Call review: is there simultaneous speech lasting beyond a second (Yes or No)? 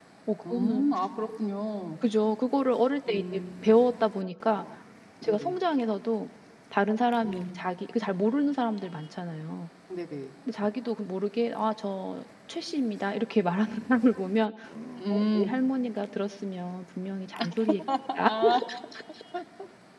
No